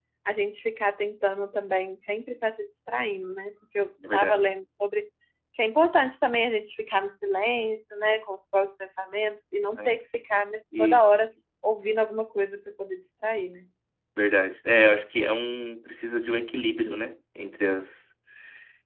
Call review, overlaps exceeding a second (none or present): none